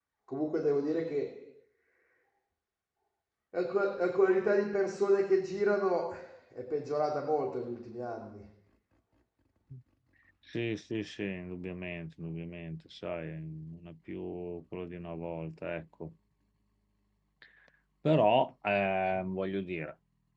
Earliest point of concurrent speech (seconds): none

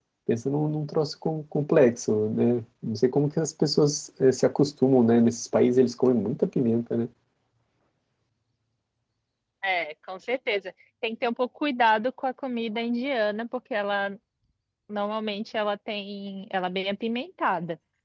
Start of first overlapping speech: none

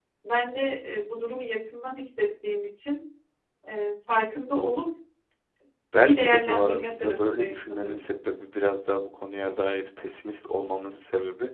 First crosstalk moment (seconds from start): 6 s

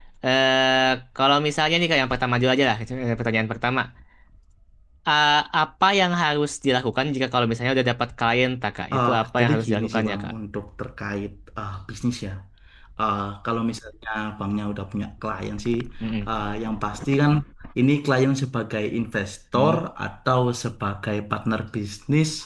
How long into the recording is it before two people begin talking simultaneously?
9 s

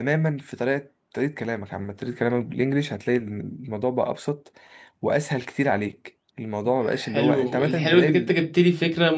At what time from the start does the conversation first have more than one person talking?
7 s

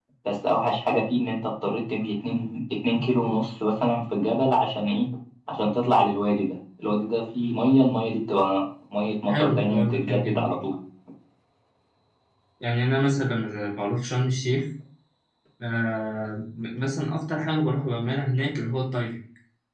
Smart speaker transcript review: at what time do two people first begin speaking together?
9 s

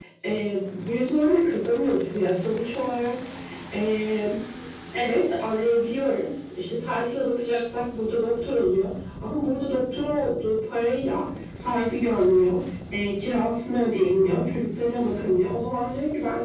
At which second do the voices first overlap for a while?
none

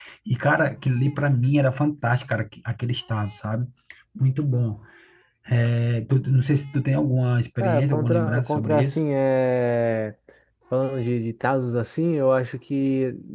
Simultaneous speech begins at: 8 s

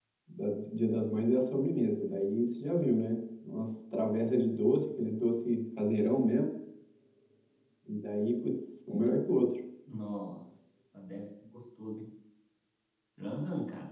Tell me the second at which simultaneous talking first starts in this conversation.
none

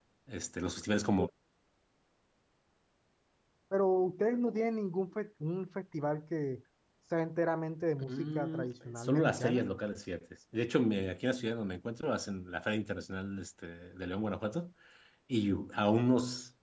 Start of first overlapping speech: 8 s

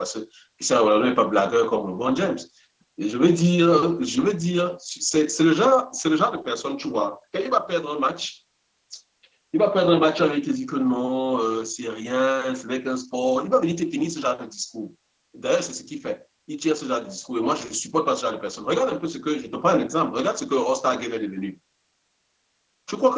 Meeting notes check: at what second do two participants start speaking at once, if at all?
none

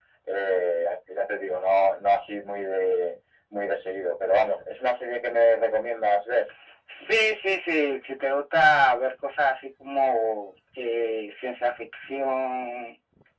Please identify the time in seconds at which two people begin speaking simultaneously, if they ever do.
none

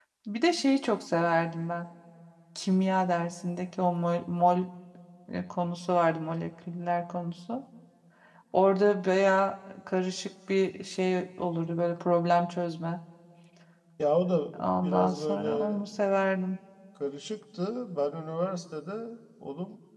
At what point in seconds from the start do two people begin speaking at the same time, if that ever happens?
15 s

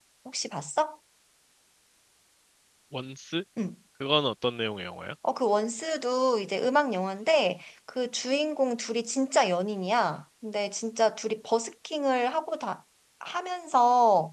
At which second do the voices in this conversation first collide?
none

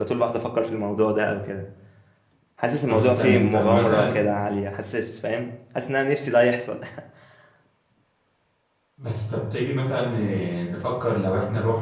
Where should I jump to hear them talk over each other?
3 s

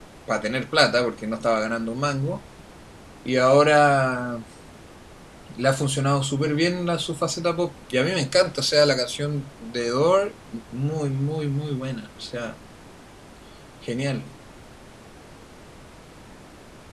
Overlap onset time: none

